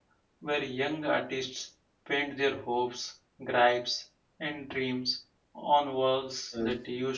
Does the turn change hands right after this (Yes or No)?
No